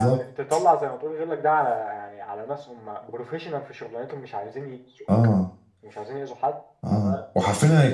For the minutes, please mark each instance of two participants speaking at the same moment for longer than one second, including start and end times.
none

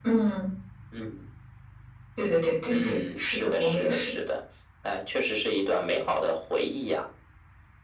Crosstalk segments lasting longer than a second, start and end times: 2.7-4.1

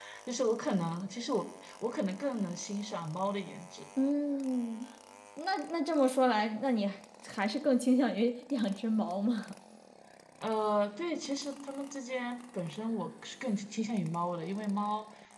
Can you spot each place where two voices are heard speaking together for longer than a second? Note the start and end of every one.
none

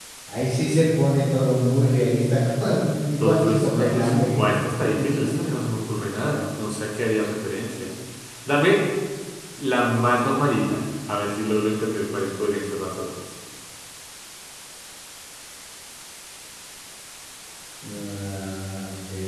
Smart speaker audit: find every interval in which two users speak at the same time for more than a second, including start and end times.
3.2-4.6

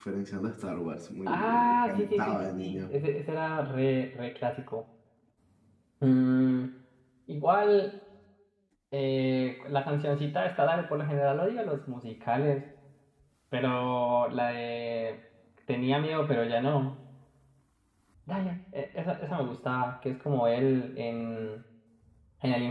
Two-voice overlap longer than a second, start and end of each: 1.3-2.9

